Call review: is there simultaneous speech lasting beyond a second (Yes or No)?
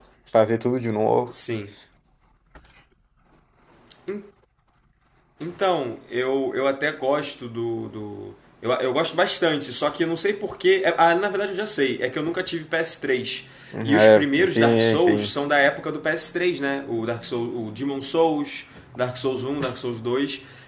Yes